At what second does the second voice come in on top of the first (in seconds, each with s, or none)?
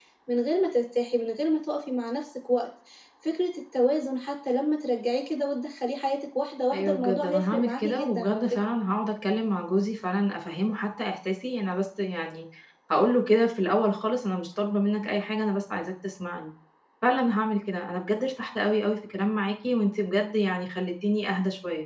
6.7 s